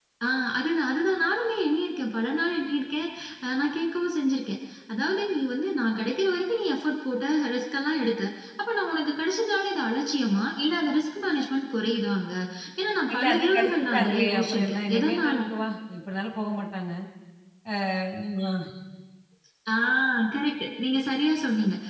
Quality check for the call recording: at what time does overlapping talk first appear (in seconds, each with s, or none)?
13.1 s